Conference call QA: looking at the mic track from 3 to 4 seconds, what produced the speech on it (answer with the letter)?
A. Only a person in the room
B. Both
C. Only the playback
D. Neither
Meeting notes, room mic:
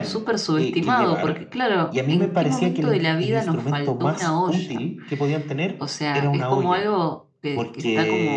B